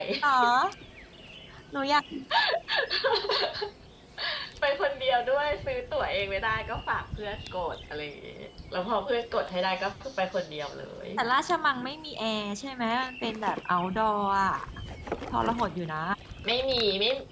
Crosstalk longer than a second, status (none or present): none